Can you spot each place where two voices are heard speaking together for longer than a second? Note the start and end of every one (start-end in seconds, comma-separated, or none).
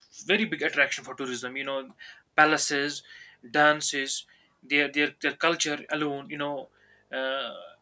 none